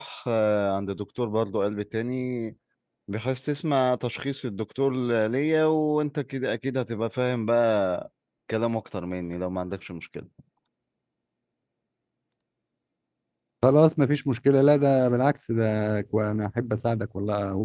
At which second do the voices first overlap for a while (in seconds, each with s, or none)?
none